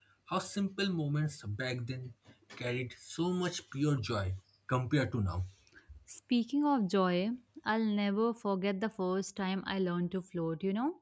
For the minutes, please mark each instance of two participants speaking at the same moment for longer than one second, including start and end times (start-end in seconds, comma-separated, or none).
none